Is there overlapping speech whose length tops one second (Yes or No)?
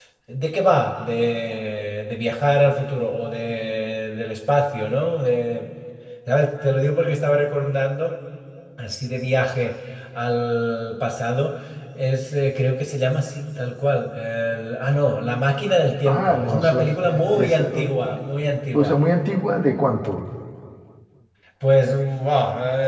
Yes